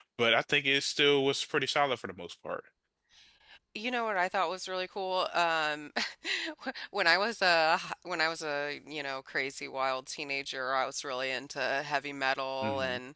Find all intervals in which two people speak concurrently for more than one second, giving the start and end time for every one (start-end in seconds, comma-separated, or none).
none